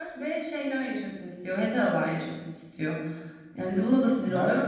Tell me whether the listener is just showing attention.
No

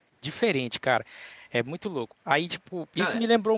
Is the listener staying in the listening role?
Yes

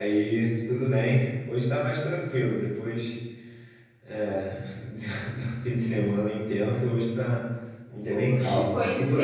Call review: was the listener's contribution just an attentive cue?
No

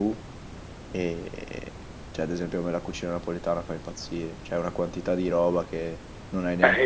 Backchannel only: No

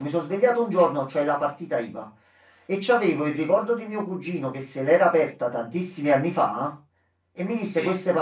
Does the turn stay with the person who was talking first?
Yes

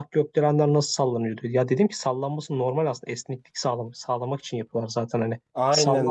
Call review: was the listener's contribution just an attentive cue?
No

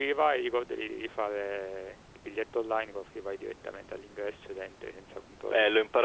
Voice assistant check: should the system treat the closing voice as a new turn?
Yes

